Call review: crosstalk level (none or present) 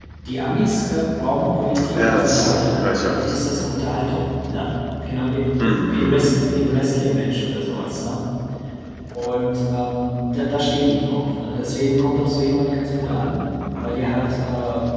present